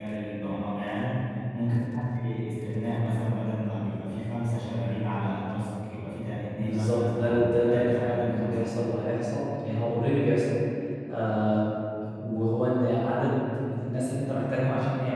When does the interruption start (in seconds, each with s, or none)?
6.6 s